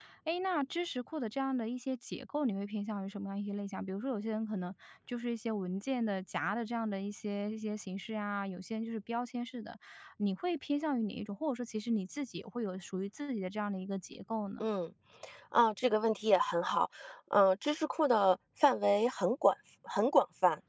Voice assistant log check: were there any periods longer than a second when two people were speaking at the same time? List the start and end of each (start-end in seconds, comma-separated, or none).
none